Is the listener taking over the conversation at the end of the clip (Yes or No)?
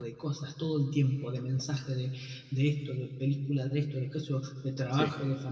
No